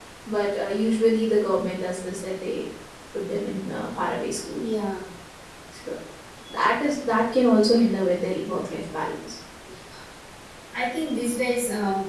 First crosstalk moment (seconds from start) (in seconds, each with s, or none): none